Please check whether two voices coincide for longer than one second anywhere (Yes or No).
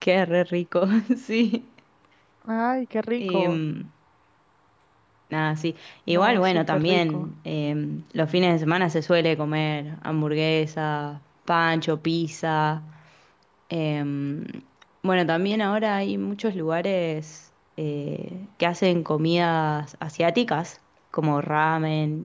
Yes